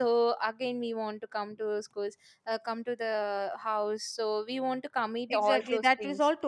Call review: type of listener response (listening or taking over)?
taking over